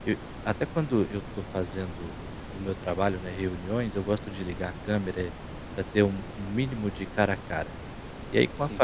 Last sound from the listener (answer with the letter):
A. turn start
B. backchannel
B